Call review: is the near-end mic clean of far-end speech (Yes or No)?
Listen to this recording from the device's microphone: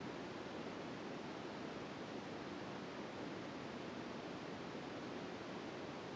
Yes